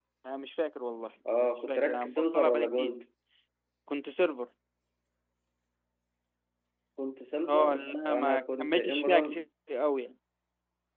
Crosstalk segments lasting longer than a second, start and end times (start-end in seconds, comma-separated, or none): 1.7-2.9, 7.5-9.4